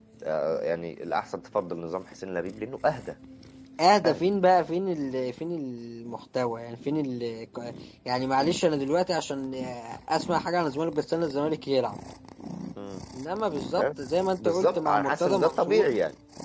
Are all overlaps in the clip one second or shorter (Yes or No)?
No